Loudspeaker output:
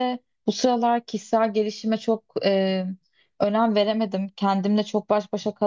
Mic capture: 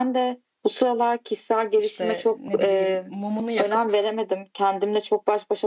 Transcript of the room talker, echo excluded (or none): işte ne bileyim mumunu yakıp,